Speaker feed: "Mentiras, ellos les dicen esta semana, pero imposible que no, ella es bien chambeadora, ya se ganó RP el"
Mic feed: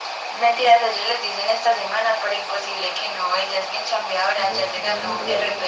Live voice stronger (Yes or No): No